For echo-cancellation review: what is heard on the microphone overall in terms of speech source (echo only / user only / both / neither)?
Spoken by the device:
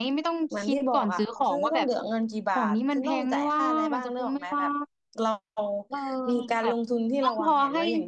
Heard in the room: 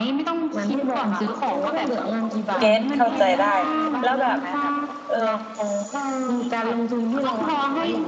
both